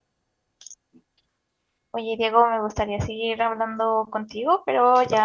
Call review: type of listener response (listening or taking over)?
listening